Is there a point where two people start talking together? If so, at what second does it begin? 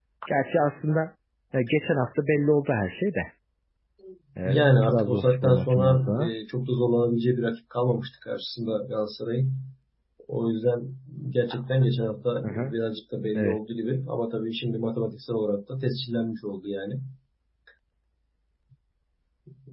4 s

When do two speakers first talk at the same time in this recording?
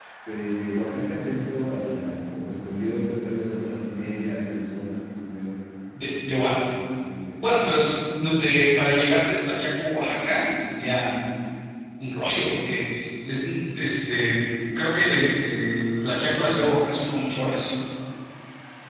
none

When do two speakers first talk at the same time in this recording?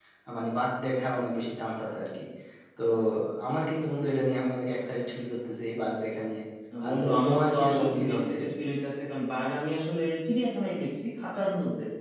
7 s

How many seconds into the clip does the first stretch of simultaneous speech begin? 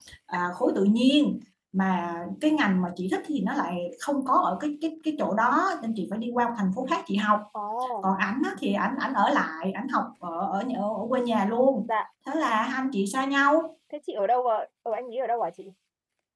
none

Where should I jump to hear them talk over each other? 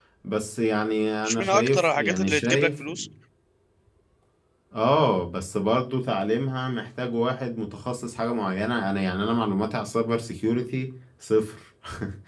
1 s

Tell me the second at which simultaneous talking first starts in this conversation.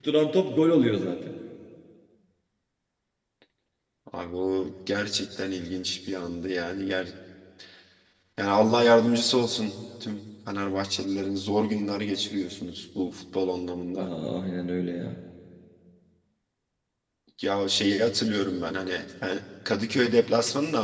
none

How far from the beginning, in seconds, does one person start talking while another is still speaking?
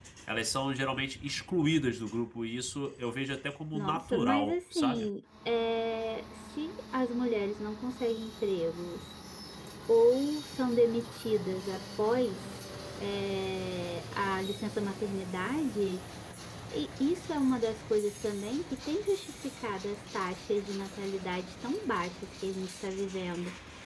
4 s

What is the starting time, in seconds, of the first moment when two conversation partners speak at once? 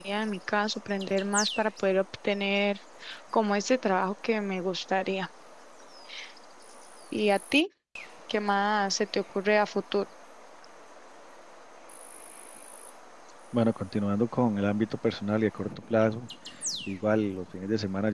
none

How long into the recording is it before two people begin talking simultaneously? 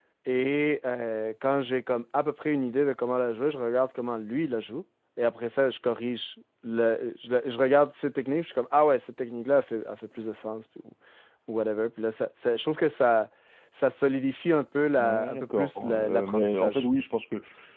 15 s

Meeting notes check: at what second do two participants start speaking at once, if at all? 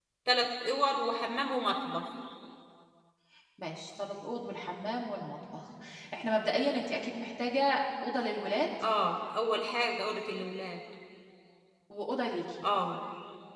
none

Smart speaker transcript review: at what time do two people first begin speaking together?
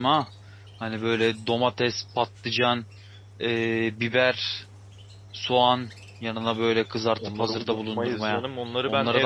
7 s

